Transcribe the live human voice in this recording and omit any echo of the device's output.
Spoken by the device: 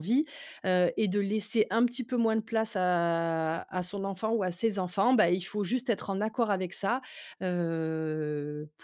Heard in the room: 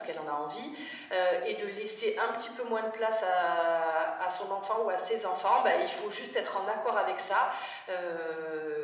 none

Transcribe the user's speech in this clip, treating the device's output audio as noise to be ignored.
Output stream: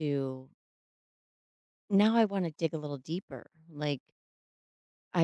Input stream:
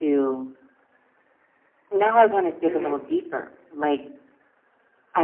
Mhm.

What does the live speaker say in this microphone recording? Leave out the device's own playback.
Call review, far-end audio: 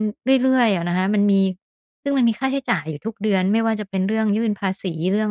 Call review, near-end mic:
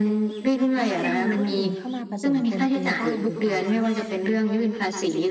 มักจะมีเรื่องอื่นเข้ามาผสมปนเปบ้างหรือเปล่าคะ

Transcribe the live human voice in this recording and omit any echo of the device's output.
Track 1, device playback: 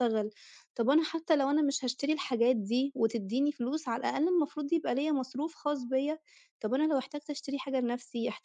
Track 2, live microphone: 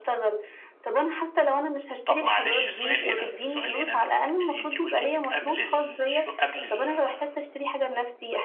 طب معلش سؤال هنا، سؤال هنا قبل ما تكمّلي، أنتِ قُلتِ إنِّك قبل الشو قبل ال

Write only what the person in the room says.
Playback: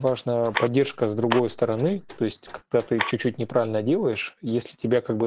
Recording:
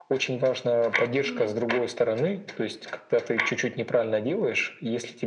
Мгм.

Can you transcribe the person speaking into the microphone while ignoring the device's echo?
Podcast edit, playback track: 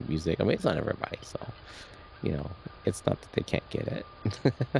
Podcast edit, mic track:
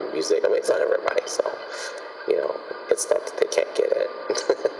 none

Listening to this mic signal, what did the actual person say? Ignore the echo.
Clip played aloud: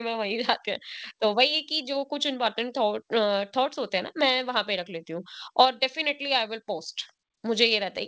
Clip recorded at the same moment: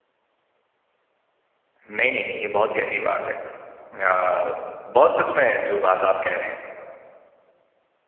नहीं, नहीं, नहीं, ये बहुत गहरी बात है। अ, बहुत सच में जो बात आप कह रहे हैं।

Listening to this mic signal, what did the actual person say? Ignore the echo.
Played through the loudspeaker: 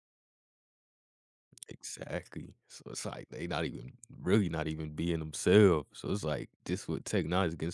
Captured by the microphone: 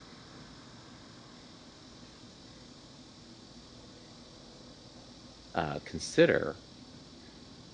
uh, consider

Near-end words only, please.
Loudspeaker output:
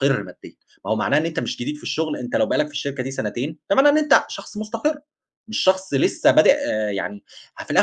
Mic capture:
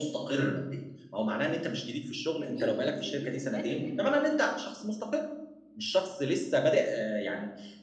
جميلة، جميلة، حلو جدًا،

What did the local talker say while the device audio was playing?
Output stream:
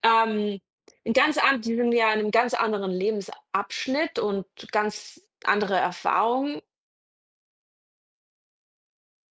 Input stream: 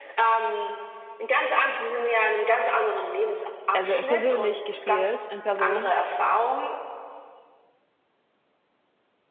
also persönlich gespielt, in Person

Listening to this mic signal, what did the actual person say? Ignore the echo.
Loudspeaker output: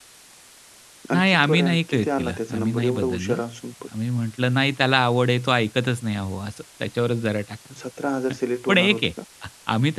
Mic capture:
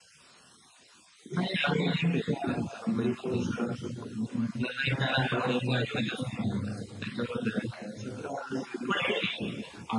none

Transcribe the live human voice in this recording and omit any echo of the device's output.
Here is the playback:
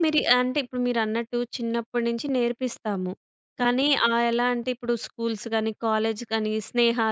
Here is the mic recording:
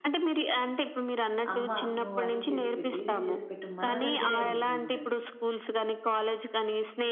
"అమ్మ నువ్వు అది చేసి పెట్టు, ఇది చేసి పెట్టు" మన దగ్గరే ఉంటూ ఉంటారు.

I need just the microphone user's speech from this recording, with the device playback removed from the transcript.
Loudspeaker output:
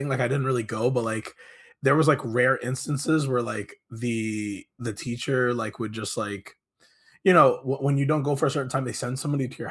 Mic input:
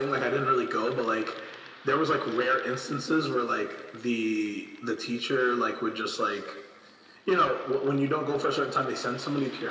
none

